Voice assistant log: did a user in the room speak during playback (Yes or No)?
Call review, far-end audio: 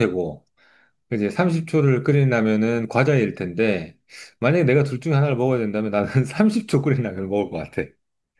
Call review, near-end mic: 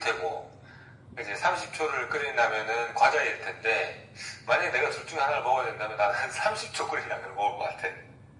No